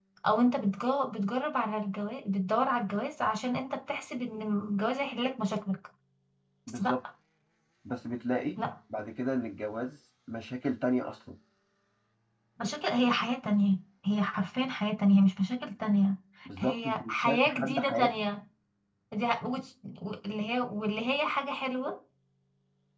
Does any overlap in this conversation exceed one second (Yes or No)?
Yes